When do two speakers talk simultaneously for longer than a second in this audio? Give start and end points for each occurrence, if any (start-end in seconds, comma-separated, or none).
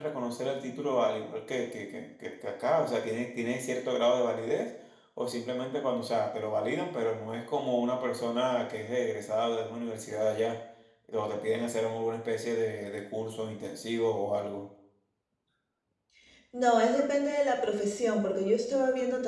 none